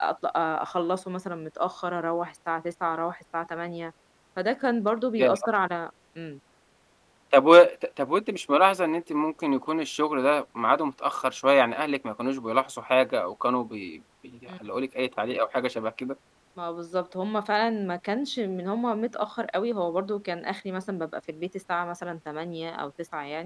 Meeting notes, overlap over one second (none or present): none